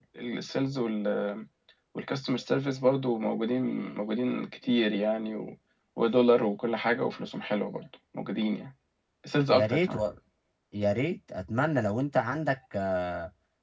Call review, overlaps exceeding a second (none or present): none